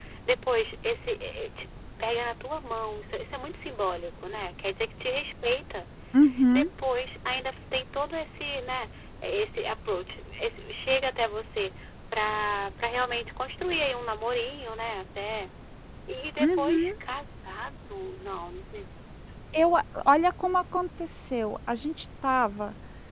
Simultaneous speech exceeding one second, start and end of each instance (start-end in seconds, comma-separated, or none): none